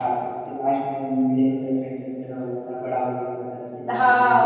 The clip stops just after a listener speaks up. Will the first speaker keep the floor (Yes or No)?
No